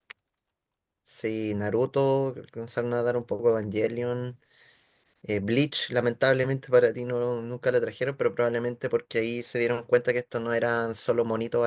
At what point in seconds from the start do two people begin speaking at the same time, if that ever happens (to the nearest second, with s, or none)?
none